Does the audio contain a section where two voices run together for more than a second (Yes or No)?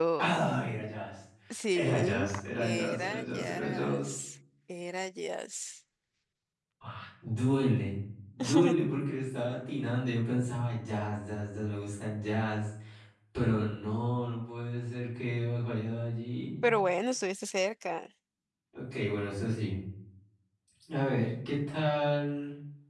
Yes